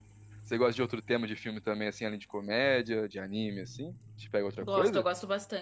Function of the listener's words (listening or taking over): taking over